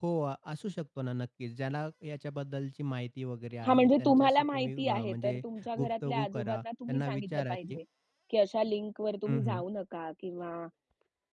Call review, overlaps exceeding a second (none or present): present